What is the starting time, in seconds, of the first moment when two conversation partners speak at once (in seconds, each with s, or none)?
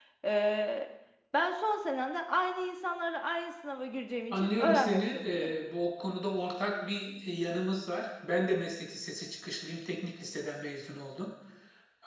4.3 s